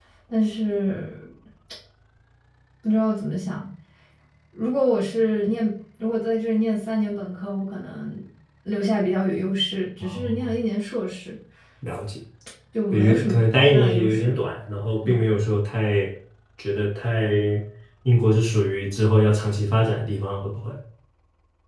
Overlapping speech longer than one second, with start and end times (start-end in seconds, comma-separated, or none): 12.9-14.4